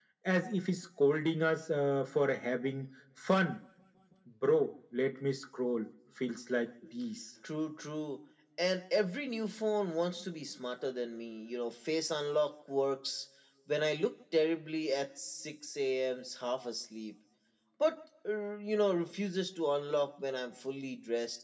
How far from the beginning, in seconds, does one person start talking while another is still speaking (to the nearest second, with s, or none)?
none